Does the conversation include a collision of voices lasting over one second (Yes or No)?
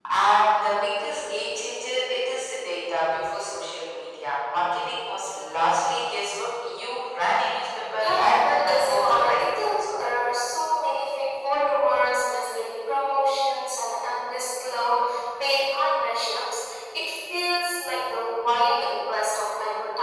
Yes